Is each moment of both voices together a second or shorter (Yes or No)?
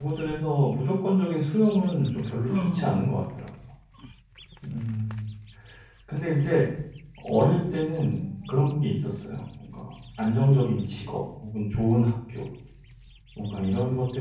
No